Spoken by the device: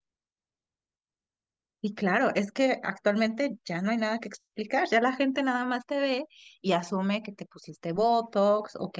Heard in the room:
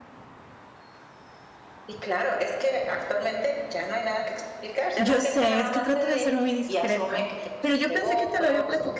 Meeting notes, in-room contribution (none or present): present